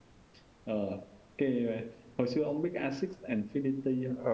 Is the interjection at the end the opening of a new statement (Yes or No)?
Yes